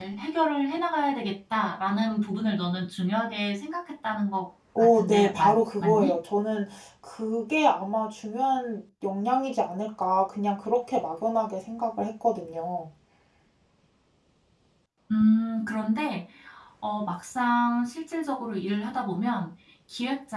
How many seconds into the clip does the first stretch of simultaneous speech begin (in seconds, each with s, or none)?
4.8 s